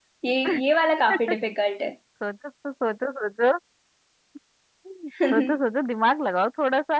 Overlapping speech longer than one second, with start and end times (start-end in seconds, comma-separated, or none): none